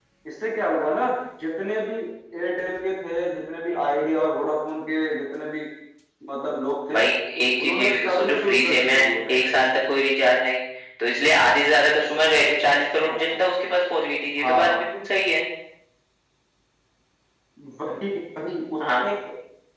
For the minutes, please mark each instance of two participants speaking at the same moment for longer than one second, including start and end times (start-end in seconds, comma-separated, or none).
7.6-9.3